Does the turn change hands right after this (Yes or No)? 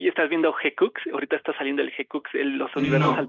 Yes